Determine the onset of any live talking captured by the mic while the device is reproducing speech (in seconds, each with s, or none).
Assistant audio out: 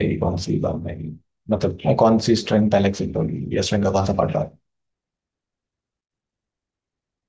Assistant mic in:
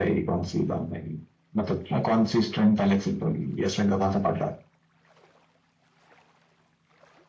none